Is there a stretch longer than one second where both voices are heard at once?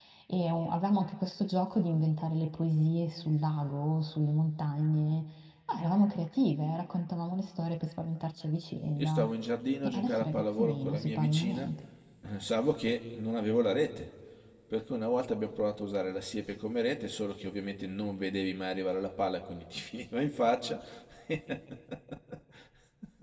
Yes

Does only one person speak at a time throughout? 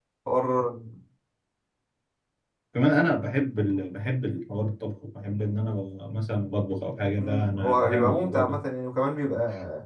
No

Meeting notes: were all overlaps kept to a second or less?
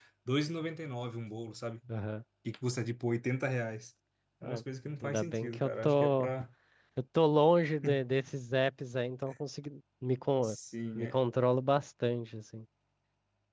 No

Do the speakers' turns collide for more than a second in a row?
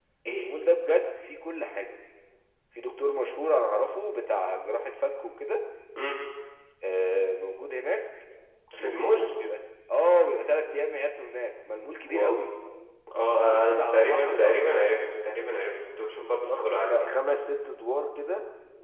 Yes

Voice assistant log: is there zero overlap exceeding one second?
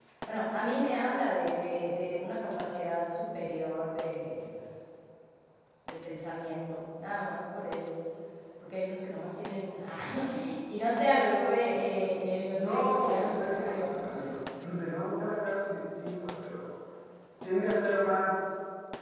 No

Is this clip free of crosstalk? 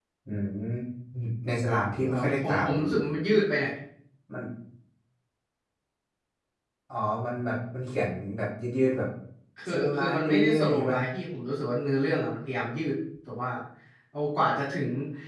No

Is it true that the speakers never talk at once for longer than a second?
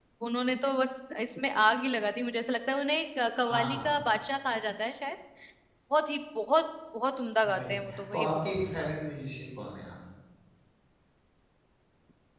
No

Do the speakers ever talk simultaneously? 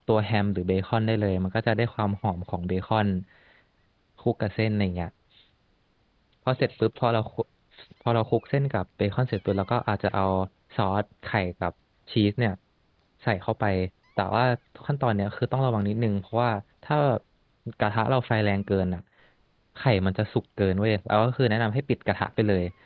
No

